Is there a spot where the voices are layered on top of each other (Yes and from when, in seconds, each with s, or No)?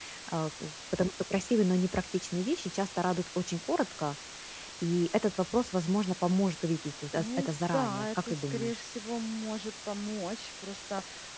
Yes, from 7.2 s